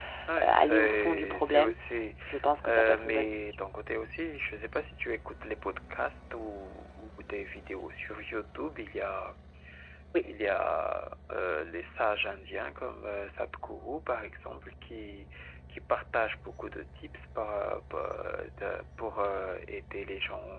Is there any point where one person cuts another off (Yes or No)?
Yes